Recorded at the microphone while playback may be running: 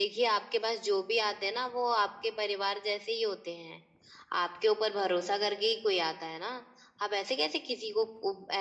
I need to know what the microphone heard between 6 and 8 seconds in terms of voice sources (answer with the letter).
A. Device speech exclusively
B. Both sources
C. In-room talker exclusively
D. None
A